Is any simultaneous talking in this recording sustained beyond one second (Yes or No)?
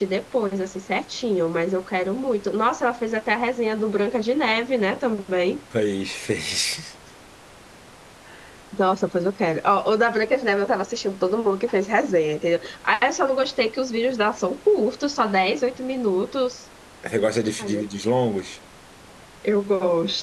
No